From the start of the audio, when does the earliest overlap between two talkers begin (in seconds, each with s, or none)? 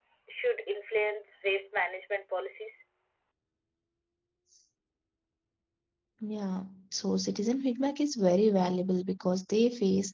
none